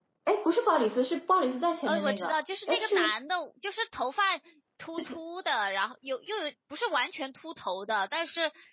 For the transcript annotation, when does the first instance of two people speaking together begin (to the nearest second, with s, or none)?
2 s